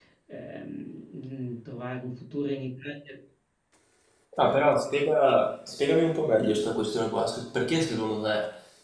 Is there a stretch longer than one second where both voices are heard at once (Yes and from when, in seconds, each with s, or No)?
No